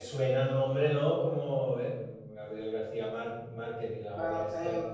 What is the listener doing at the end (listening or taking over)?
taking over